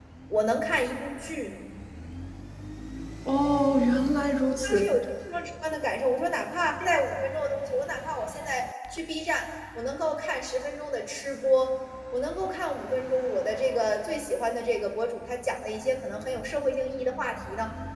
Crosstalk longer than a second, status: none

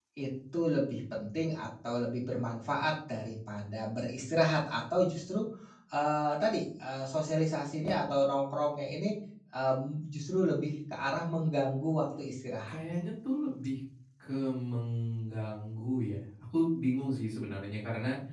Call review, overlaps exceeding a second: none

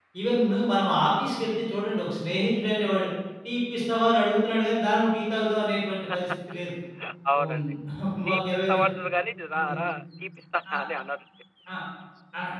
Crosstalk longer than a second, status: none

